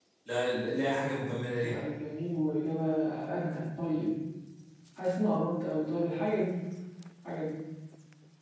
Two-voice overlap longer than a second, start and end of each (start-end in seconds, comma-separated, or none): none